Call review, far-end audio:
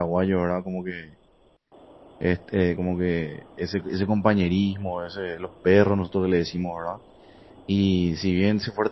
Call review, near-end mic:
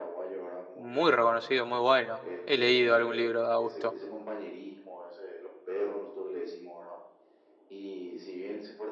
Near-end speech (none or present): present